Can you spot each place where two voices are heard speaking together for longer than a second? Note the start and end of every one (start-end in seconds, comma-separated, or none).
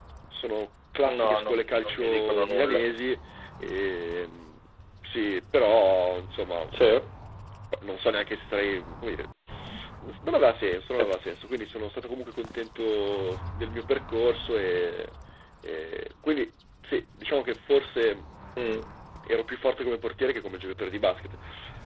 1.2-2.8